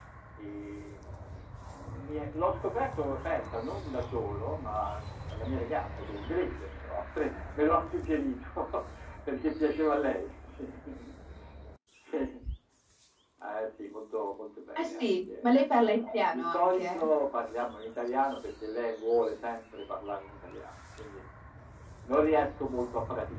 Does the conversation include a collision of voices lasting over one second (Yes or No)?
Yes